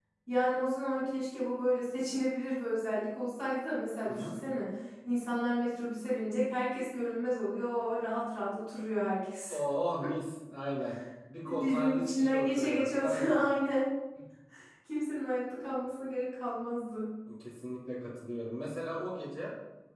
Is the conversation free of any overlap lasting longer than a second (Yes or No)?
No